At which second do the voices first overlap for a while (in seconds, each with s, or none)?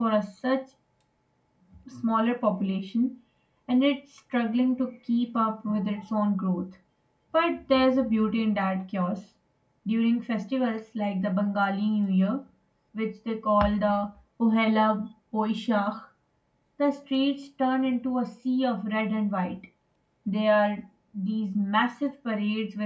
none